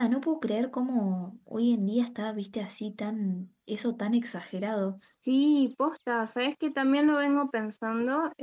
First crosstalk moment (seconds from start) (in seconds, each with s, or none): none